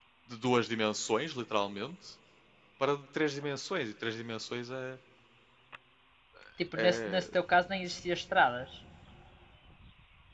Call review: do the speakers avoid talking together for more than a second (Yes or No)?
Yes